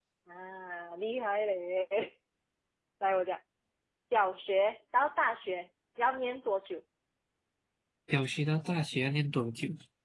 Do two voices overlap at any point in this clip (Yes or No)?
No